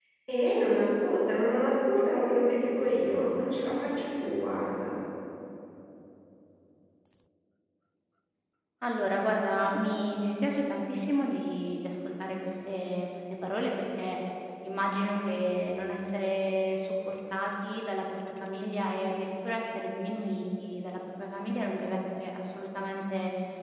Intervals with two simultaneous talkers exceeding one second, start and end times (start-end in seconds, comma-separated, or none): none